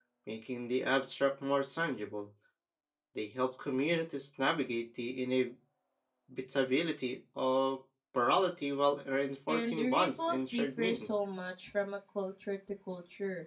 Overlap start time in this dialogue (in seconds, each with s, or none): 9.5 s